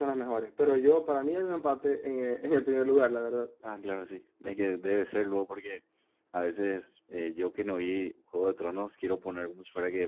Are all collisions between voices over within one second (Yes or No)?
Yes